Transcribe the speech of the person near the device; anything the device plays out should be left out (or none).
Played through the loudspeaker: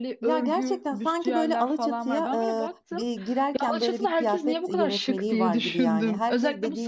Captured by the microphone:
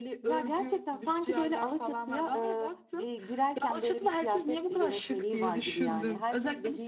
none